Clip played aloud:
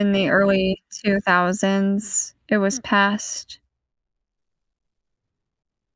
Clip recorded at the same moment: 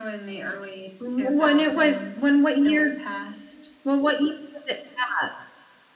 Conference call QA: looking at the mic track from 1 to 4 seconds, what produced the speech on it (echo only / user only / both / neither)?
both